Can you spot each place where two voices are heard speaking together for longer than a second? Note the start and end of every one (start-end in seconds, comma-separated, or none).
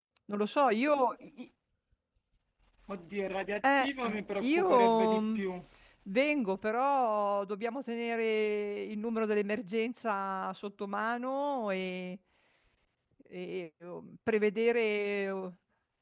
3.8-5.4